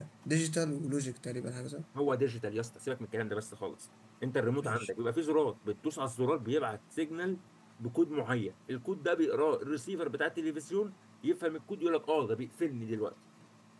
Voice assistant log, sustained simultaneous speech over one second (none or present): none